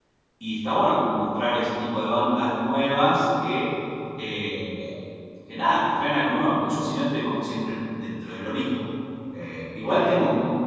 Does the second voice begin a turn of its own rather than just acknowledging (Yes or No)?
No